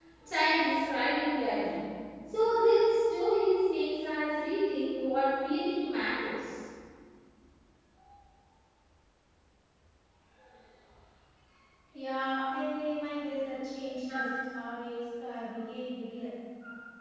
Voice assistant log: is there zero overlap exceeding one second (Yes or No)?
Yes